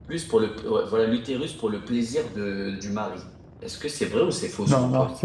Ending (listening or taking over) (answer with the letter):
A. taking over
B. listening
A